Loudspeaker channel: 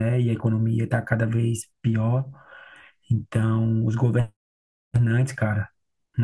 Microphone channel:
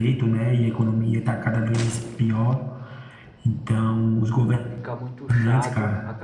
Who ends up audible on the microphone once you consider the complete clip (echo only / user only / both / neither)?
both